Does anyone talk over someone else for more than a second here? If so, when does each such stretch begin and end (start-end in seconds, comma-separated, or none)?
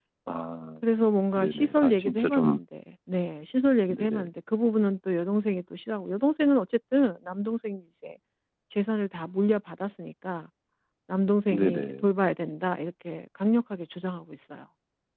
1.4-2.6